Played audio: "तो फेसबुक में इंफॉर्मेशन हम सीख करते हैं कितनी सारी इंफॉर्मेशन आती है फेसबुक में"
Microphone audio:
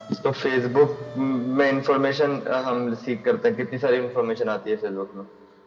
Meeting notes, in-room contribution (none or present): none